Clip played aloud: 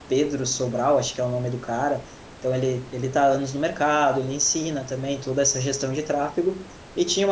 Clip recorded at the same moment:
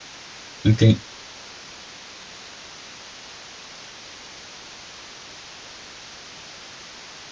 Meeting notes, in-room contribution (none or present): present